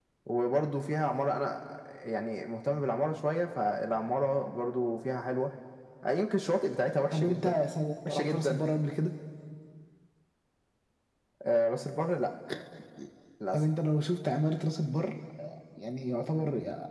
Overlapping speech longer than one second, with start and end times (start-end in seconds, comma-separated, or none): none